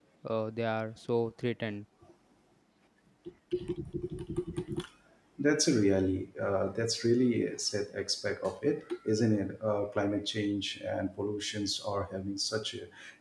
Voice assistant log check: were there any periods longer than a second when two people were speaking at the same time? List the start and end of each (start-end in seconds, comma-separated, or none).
none